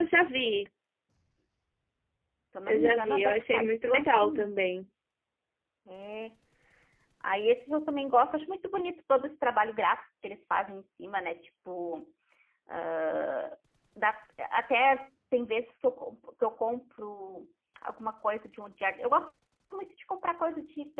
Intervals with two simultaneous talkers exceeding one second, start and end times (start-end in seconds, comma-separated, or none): 2.7-4.5